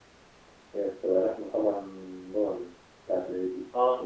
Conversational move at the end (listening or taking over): taking over